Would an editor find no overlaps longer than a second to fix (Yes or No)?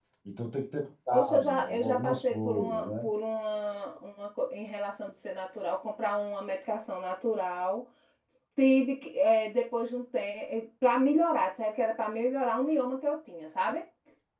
No